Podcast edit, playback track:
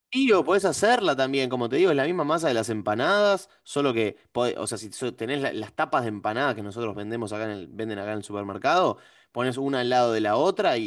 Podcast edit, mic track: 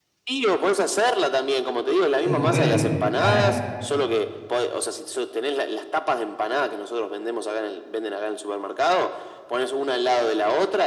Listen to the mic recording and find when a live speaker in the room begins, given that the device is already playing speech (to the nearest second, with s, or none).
2 s